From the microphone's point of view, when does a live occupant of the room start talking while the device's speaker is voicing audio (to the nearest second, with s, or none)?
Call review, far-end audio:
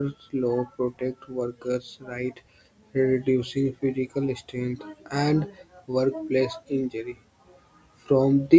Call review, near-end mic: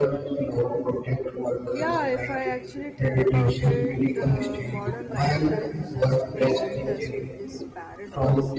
2 s